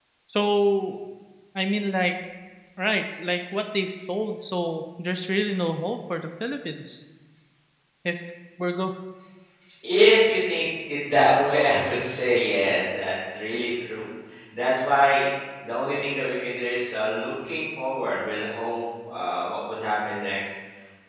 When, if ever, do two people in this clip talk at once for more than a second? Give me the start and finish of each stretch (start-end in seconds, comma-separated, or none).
none